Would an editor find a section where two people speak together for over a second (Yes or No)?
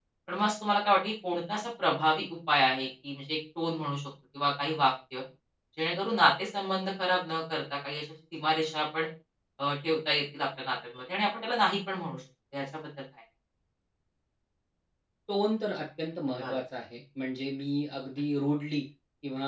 No